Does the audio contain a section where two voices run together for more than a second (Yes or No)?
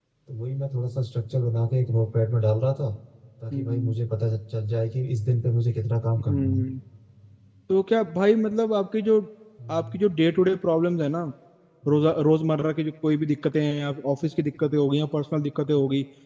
No